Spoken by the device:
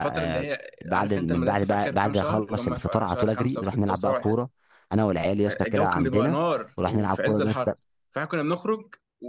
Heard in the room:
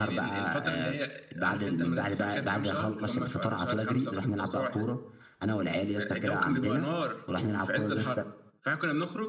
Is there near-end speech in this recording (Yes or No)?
No